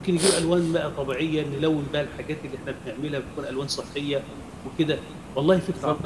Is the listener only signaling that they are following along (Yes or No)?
No